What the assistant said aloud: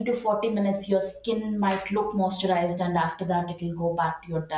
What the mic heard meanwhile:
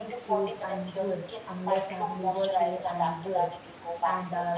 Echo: present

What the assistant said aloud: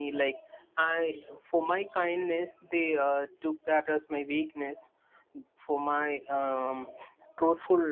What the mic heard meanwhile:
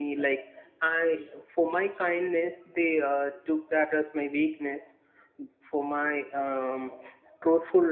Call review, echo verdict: present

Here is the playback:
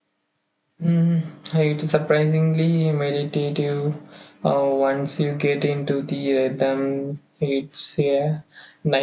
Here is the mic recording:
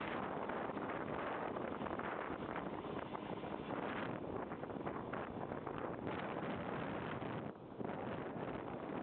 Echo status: none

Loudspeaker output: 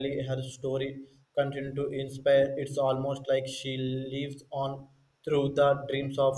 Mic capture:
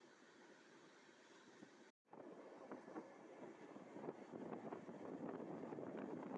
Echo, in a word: none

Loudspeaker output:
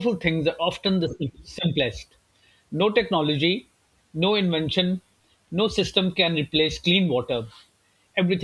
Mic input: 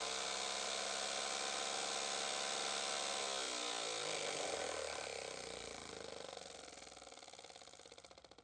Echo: none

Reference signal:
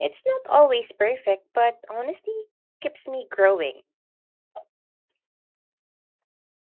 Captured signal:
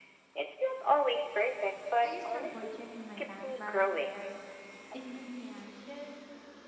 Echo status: present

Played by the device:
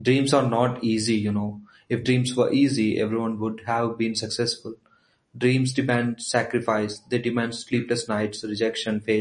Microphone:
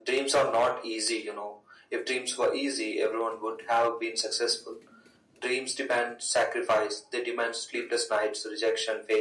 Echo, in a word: present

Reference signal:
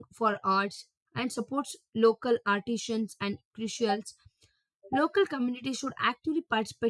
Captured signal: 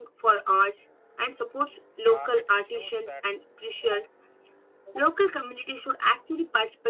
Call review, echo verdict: present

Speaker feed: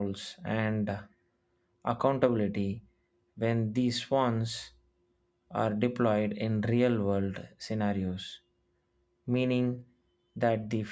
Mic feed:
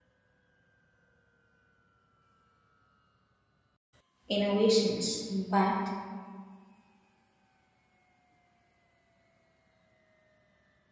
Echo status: none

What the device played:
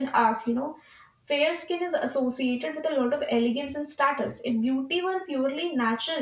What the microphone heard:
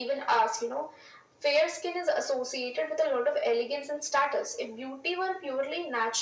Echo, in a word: present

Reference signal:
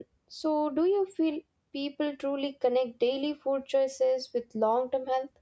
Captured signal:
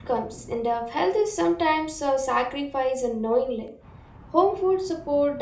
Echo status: none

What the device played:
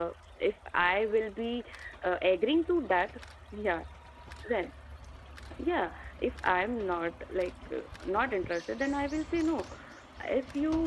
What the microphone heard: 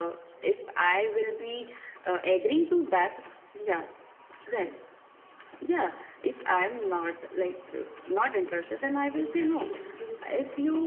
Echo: present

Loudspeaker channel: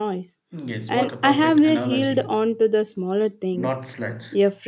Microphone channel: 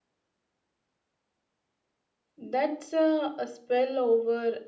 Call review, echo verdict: none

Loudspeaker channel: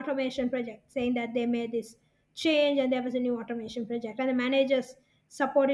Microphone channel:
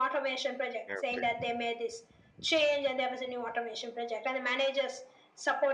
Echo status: present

